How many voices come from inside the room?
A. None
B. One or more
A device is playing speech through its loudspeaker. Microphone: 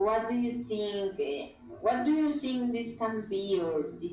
A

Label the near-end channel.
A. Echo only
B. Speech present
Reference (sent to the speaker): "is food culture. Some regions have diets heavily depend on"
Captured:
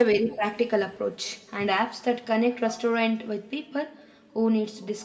B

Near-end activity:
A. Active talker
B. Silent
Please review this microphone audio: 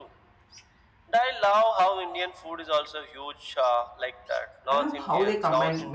A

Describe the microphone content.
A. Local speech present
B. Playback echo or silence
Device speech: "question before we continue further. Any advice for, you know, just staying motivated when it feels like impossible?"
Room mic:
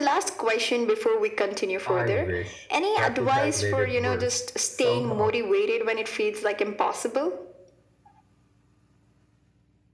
A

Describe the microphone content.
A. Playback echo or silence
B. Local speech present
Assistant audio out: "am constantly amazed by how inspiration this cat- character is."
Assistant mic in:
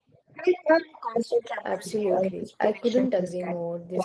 B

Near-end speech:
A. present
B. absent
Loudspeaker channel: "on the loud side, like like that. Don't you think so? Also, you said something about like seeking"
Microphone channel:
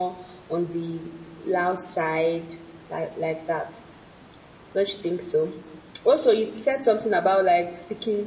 B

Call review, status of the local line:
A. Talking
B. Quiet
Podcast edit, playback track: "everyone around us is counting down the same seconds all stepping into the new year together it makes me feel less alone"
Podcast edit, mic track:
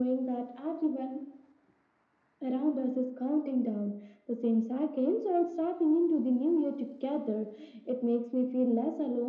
B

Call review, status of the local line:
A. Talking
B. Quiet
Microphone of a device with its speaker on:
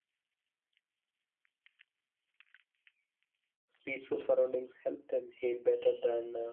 A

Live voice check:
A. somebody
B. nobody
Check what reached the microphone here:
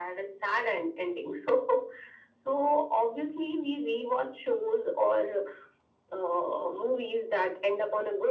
B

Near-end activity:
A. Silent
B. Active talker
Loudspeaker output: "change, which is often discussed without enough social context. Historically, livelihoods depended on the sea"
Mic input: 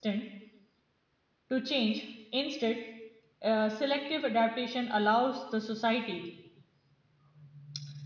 B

